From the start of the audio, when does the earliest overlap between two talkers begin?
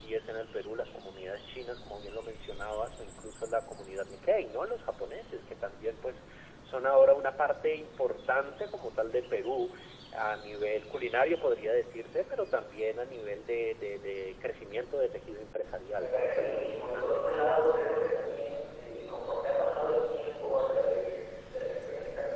15.9 s

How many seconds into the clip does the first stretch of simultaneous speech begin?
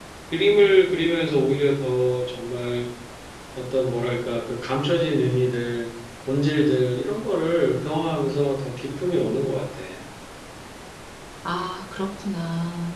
none

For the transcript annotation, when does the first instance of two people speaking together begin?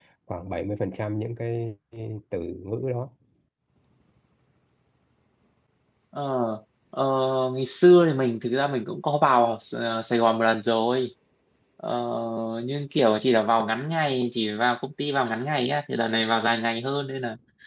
none

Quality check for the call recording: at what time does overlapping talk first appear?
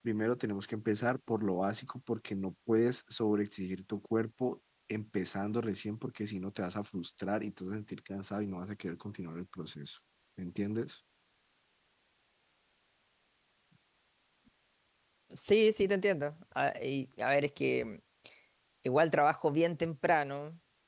none

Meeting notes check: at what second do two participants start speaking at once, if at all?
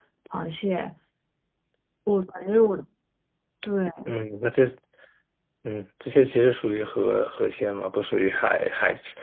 none

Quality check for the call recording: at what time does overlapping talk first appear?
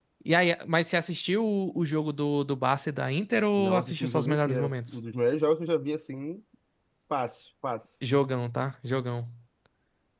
3.6 s

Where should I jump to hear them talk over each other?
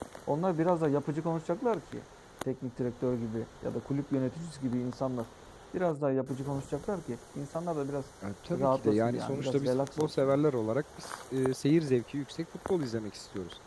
8.5 s

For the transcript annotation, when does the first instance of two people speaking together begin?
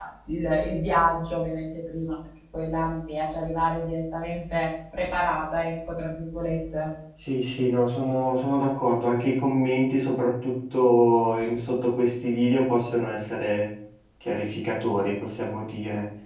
none

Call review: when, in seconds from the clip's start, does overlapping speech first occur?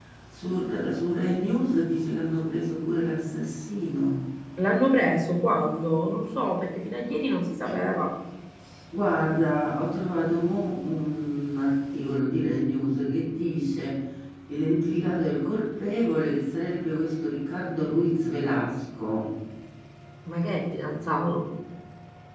none

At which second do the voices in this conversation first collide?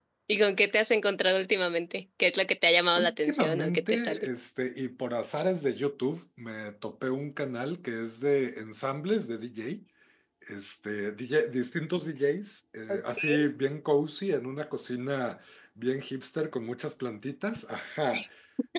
3.0 s

